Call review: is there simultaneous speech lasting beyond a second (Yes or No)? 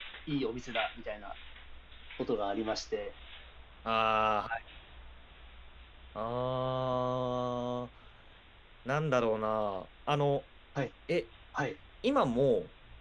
No